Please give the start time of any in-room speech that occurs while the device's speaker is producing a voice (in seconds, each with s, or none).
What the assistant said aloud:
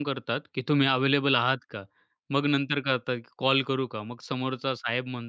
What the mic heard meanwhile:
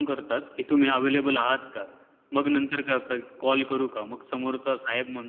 none